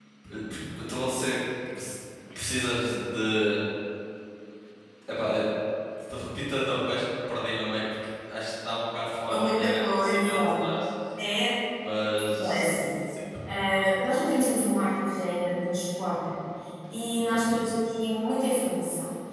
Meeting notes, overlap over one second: present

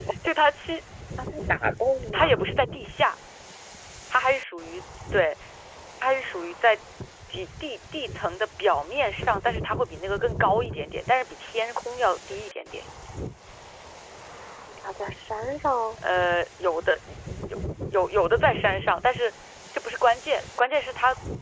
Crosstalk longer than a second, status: none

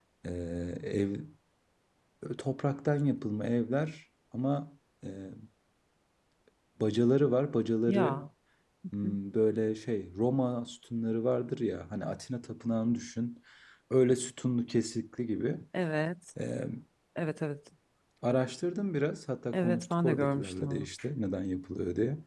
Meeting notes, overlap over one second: present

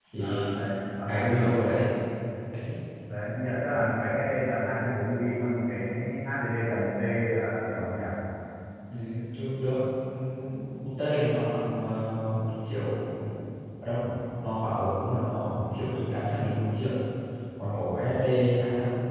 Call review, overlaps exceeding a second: none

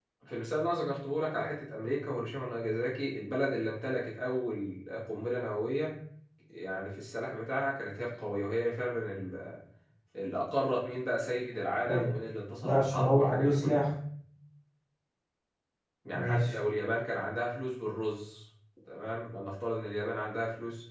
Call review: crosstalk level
present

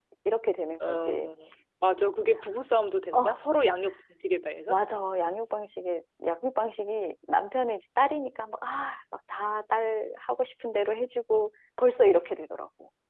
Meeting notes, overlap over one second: none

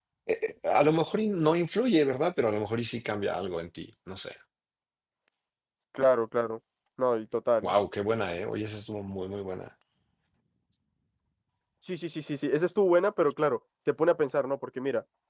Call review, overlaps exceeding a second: none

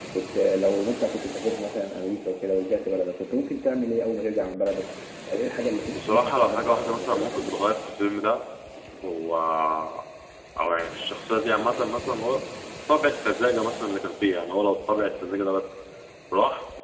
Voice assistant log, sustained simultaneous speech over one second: present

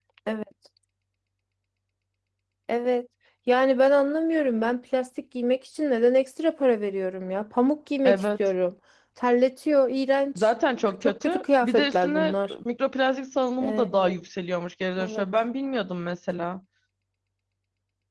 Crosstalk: present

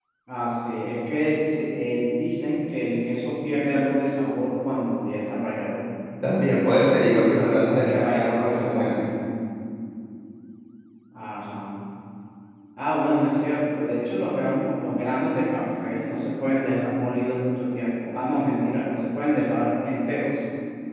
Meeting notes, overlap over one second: present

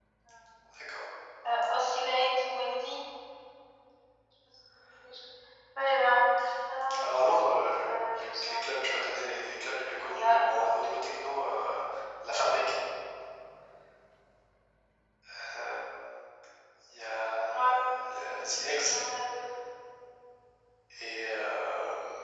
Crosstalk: present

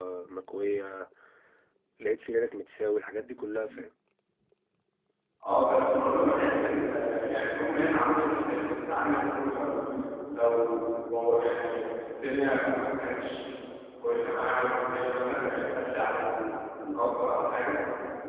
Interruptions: none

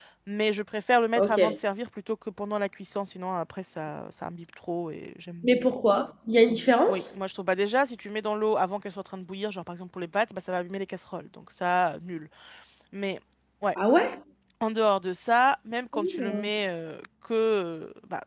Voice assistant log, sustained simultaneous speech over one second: none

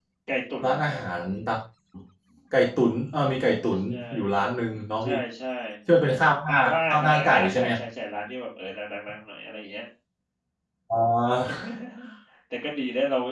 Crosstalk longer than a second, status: present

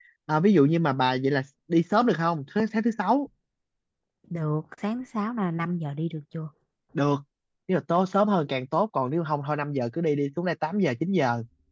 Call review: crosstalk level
none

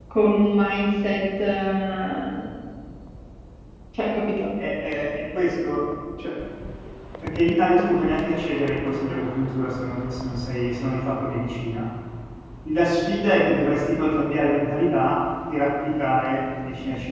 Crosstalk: none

